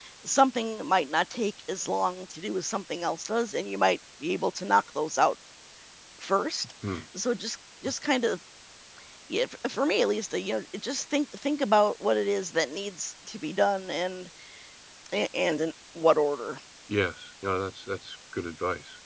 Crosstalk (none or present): none